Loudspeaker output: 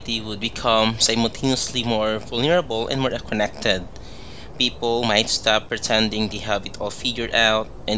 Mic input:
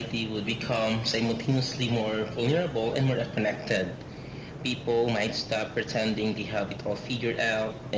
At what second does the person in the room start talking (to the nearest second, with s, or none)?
none